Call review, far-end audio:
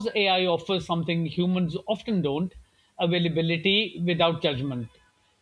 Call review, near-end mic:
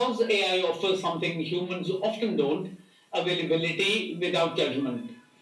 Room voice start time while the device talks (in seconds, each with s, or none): none